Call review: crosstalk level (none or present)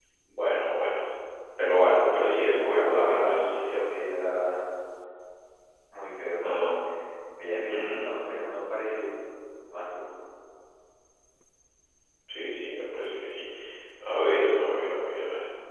present